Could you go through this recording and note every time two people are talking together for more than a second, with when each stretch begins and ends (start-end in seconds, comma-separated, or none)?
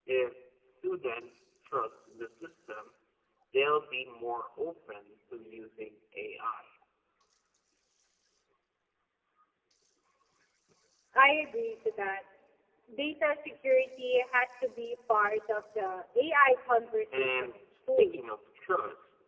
17.1-18.4